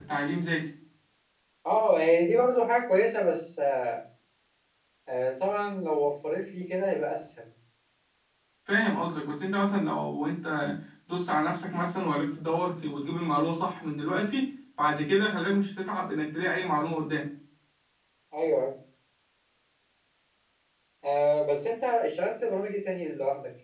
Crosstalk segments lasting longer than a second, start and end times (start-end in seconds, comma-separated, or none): none